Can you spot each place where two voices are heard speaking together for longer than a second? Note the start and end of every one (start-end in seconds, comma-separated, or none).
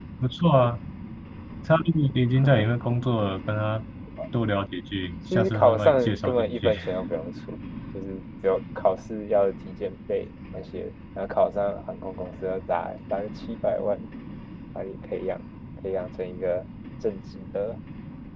5.3-6.7